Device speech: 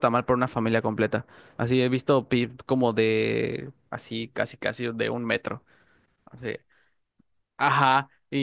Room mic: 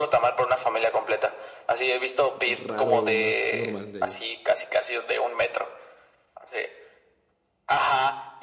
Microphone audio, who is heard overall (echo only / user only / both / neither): both